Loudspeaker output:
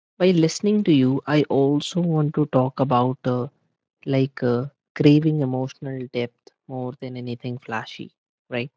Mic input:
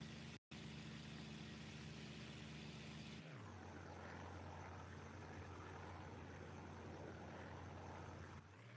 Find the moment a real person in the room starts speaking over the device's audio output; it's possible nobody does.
none

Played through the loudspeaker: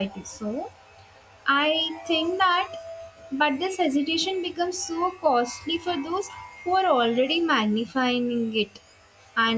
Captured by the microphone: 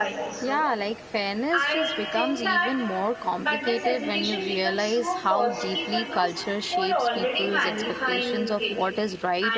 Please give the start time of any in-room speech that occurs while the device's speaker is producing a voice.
0.4 s

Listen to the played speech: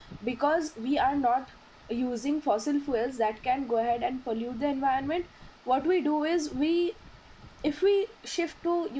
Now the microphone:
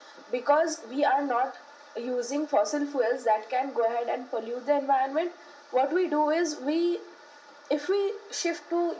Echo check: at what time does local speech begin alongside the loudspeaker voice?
none

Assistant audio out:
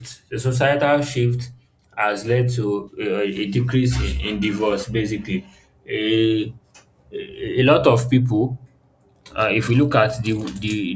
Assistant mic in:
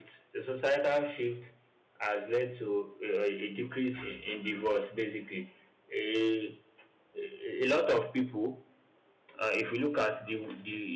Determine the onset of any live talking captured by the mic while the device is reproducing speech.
none

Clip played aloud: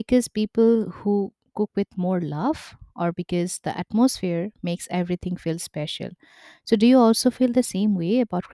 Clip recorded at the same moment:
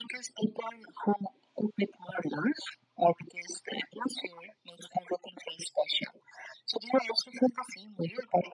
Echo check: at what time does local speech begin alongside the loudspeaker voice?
none

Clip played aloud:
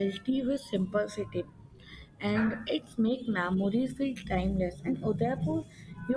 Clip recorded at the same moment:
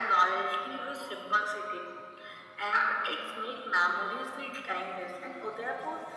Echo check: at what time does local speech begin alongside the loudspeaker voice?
none

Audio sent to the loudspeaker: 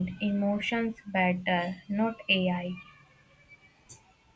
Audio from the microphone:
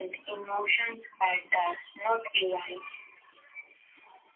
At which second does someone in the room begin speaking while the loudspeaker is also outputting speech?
none

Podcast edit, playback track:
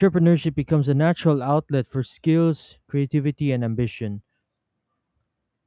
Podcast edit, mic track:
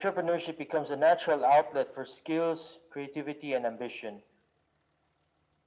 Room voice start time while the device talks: none

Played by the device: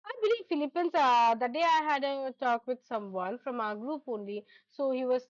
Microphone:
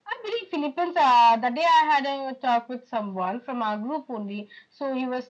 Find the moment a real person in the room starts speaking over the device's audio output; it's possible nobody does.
none

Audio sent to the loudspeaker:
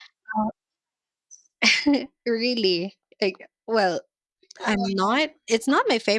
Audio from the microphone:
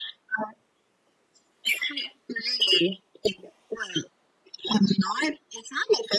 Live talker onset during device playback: none

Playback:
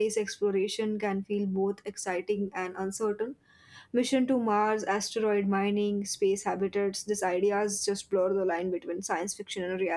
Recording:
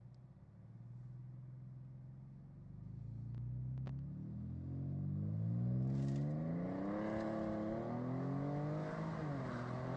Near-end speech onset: none

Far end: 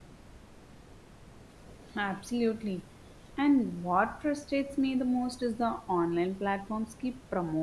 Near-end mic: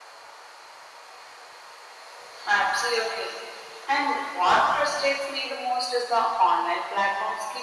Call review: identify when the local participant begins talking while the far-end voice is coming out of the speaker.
none

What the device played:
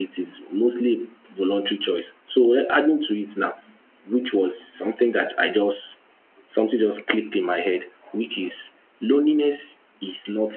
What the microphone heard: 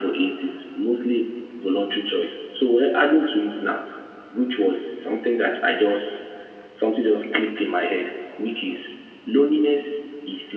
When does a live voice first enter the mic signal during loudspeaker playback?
none

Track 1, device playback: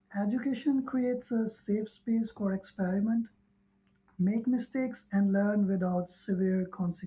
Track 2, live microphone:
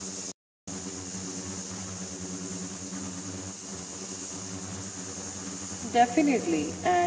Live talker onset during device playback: 5.9 s

